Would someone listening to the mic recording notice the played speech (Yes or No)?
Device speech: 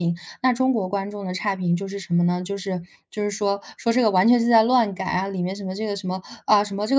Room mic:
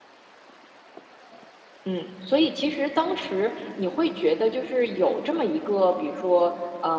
No